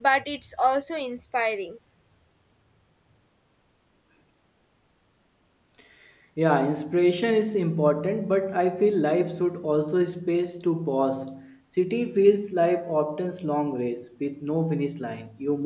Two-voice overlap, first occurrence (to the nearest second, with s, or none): none